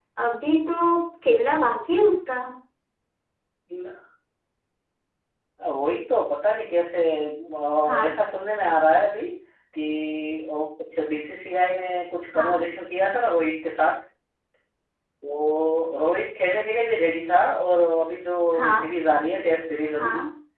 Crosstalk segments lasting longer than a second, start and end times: none

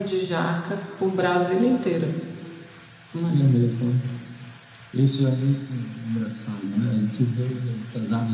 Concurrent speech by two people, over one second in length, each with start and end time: none

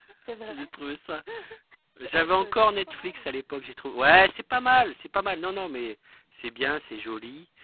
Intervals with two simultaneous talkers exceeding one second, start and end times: 2.0-3.2

